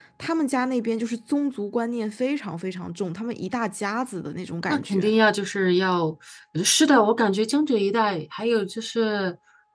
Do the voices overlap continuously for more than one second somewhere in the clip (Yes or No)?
No